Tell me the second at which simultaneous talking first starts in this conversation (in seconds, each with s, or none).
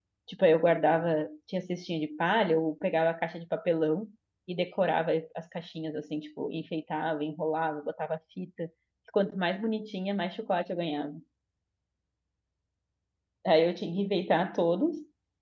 none